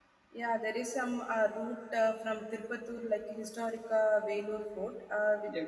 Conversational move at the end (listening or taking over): listening